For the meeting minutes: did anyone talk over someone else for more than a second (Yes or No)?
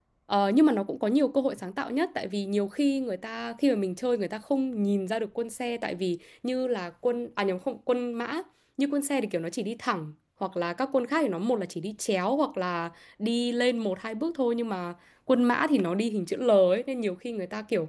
No